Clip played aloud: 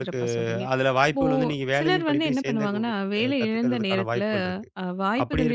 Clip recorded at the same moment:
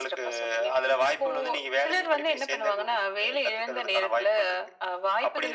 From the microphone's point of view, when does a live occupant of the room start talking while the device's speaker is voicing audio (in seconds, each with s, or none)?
none